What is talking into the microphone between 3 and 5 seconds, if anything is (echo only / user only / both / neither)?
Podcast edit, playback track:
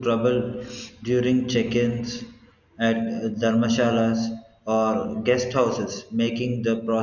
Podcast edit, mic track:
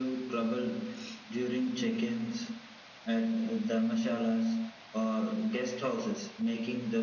echo only